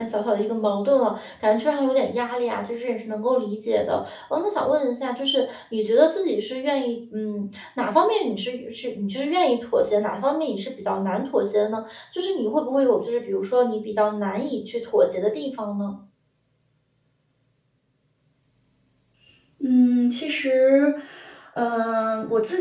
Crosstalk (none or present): none